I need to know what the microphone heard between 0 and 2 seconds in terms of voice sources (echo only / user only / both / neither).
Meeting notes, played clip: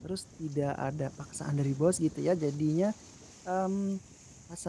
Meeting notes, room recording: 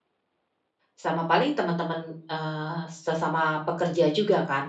user only